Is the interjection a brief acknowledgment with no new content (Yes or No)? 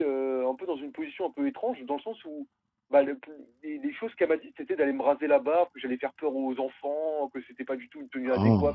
Yes